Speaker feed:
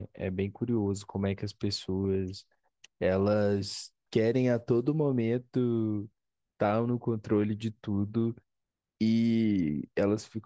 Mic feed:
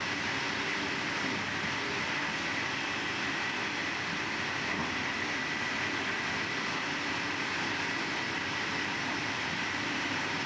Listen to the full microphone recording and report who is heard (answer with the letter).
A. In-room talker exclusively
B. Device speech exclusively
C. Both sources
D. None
D